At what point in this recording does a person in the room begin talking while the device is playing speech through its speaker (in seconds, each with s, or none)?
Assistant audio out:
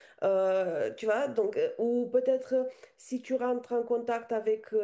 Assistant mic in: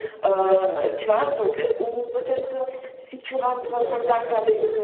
3.6 s